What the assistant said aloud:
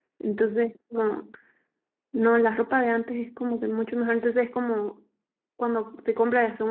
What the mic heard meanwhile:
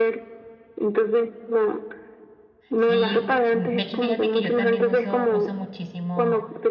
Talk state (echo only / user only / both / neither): both